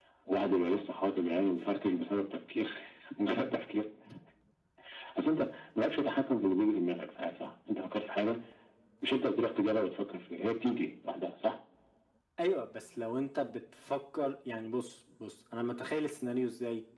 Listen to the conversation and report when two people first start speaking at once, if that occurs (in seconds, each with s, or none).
none